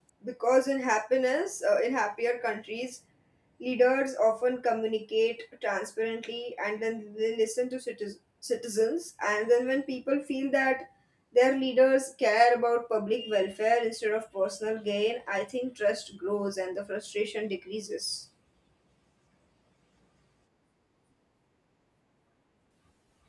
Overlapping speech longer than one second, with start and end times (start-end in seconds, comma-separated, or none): none